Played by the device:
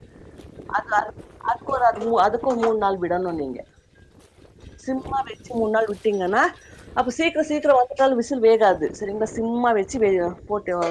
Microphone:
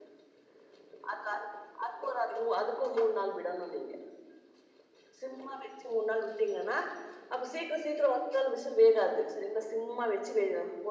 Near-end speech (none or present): none